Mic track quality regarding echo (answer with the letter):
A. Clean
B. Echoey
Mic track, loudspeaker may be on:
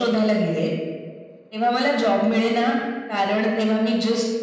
B